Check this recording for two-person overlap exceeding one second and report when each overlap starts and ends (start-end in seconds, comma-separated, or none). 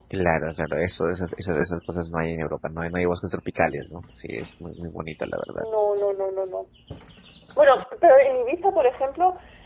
none